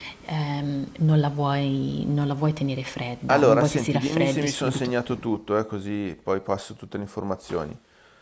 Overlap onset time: 3.3 s

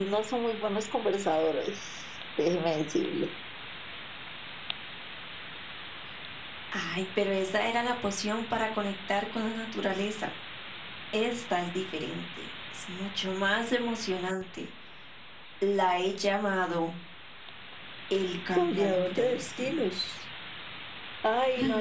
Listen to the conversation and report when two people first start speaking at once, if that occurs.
18.6 s

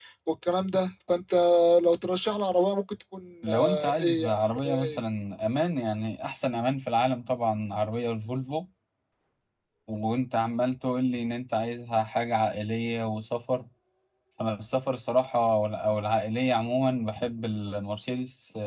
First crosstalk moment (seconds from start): 3.4 s

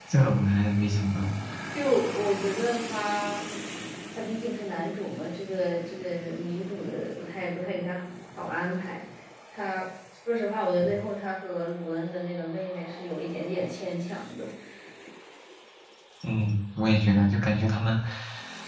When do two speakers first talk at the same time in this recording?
none

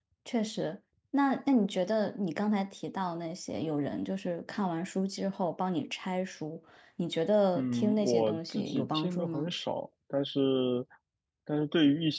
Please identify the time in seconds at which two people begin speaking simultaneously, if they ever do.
7.5 s

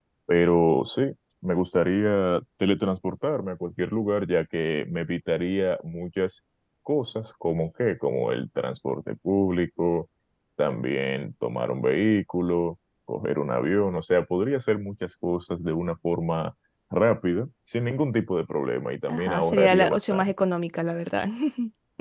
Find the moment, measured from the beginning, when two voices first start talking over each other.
19.1 s

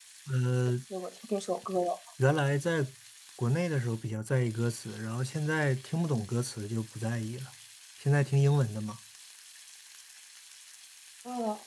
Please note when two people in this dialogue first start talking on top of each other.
none

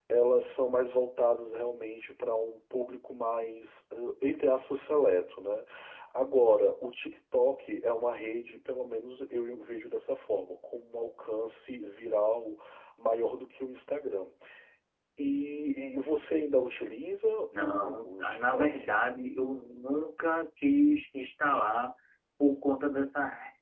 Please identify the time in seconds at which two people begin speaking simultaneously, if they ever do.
17.5 s

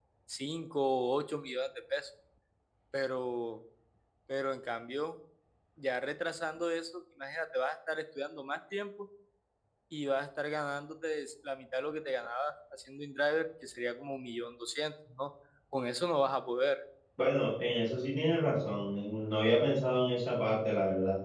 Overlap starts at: none

